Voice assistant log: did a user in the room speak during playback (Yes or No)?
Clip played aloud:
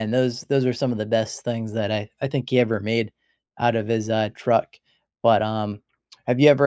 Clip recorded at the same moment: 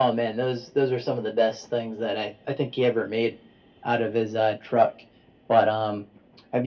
No